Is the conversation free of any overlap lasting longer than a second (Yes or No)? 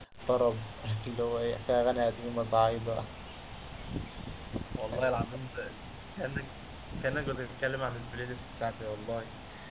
Yes